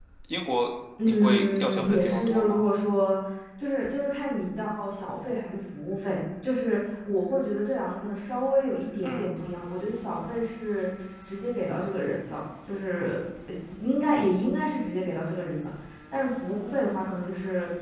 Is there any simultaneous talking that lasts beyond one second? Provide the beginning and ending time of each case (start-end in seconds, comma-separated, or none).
1.1-2.6